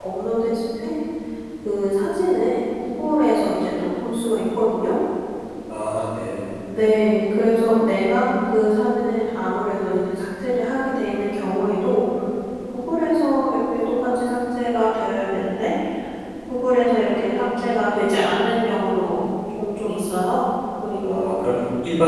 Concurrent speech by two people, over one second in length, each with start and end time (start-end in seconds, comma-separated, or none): none